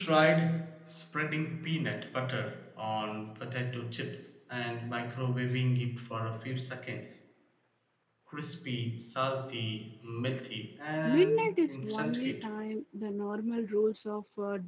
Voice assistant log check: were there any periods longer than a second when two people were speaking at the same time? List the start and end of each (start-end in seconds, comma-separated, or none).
11.0-12.5